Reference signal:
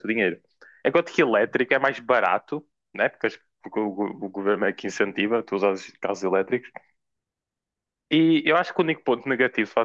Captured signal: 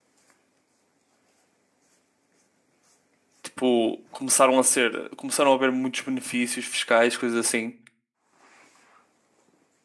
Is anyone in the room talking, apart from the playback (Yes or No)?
Yes